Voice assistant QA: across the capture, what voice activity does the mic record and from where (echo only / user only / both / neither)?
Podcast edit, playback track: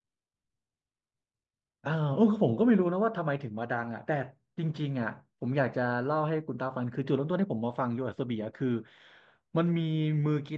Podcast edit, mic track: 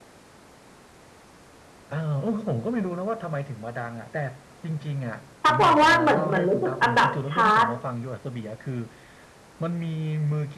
both